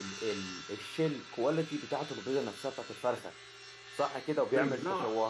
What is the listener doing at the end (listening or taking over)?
listening